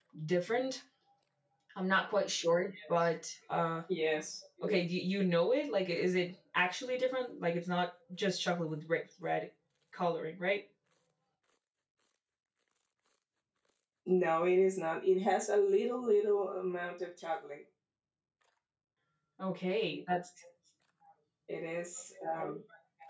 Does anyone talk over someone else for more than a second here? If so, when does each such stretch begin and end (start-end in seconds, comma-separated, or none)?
none